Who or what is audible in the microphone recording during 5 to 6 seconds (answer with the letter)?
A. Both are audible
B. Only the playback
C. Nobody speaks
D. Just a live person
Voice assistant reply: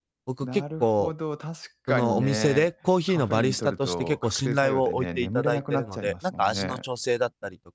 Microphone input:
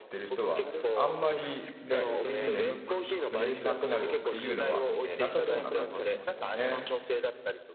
A